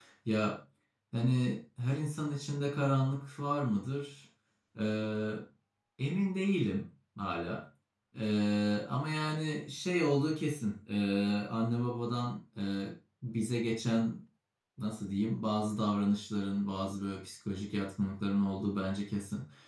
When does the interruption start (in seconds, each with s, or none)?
none